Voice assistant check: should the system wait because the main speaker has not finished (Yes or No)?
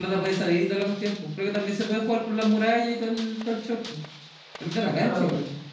No